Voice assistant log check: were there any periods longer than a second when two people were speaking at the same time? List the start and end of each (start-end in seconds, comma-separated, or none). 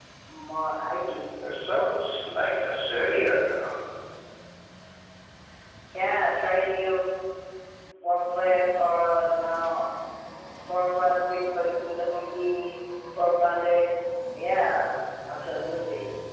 none